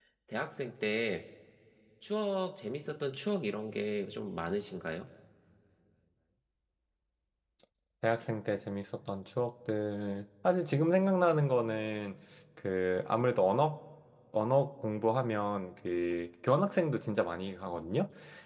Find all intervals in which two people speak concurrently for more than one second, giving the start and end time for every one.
none

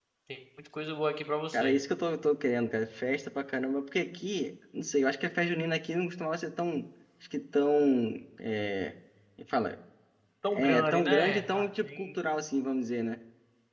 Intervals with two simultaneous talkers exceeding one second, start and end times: 10.5-12.1

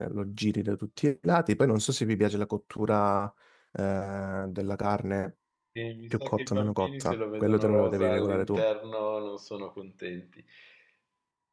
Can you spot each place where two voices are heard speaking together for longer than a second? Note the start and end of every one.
6.1-8.6

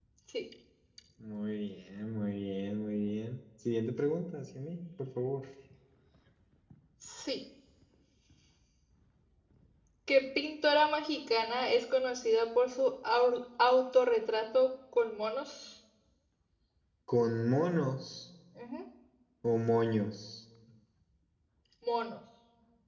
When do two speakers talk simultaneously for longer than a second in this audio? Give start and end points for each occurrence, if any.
none

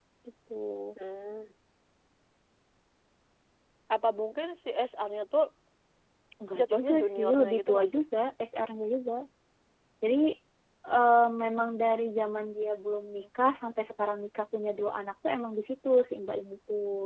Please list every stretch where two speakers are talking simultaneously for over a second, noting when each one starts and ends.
6.6-7.9

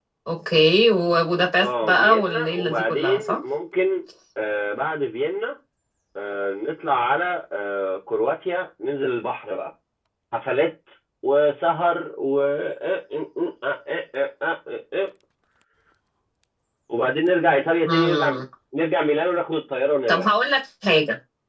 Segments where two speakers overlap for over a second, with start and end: 1.6-3.4

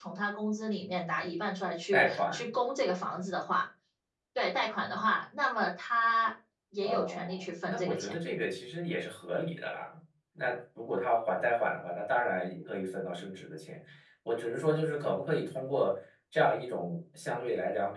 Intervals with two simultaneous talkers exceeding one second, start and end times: 6.8-8.1

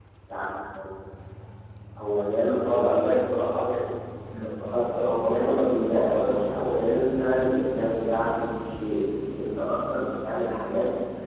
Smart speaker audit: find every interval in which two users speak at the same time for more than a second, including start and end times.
4.4-7.1

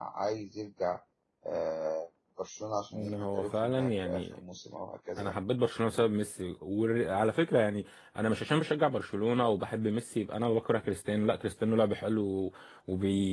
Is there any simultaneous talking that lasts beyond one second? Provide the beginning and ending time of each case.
2.9-4.4

